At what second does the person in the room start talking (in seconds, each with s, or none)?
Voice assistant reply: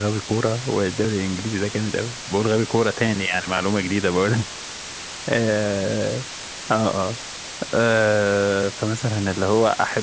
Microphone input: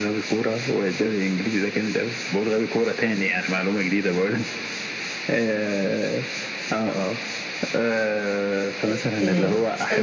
8.8 s